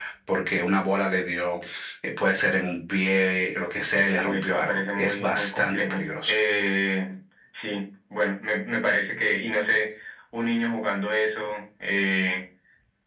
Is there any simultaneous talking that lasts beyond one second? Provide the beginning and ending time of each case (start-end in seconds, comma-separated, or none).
4.1-6.3